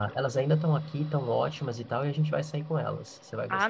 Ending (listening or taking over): taking over